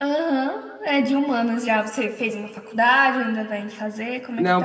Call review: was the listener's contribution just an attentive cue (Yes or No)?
No